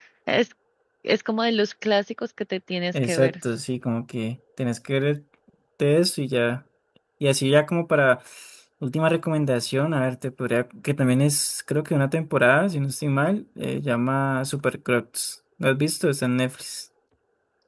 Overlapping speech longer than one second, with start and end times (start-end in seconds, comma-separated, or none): none